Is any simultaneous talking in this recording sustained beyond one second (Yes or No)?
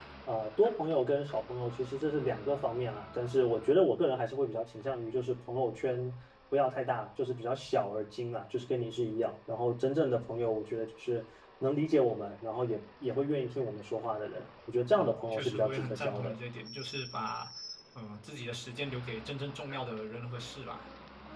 Yes